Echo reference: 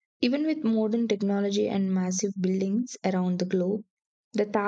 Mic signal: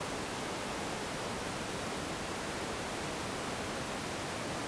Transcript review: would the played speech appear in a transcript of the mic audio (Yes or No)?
No